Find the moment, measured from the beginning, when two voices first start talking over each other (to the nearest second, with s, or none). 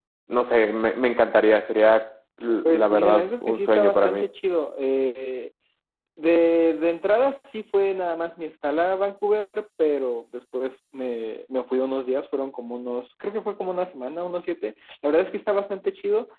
3 s